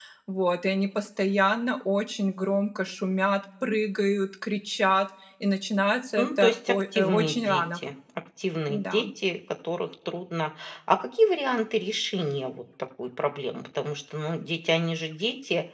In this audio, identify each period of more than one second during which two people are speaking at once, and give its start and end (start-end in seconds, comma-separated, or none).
6.2-7.8